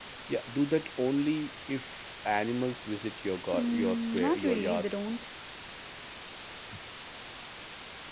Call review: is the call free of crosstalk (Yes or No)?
No